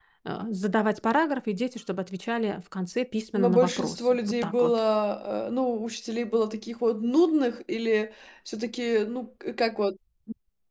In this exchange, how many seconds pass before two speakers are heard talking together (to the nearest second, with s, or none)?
3 s